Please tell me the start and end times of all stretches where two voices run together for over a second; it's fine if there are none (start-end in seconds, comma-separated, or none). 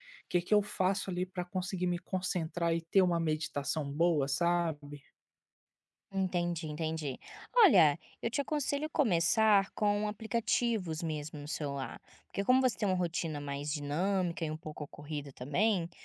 none